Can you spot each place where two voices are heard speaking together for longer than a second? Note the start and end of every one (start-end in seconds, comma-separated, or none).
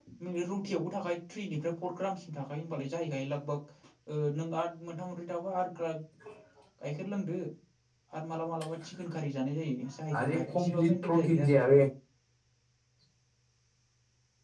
10.2-11.6